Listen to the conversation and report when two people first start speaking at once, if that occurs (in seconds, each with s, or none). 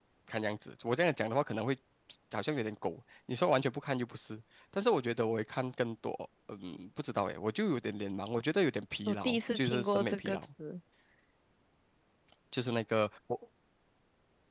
9.1 s